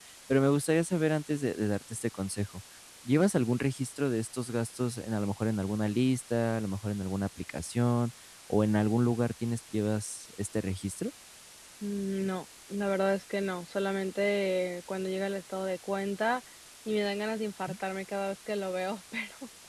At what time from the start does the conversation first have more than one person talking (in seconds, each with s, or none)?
none